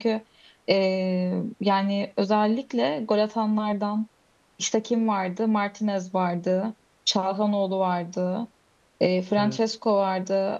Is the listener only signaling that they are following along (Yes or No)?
Yes